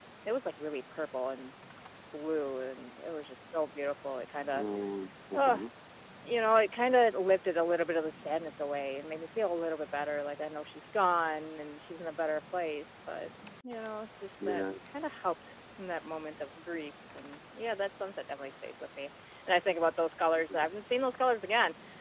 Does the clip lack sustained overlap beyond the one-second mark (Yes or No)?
Yes